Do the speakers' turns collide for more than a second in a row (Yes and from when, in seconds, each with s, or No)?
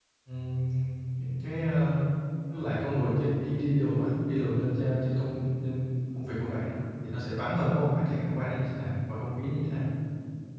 No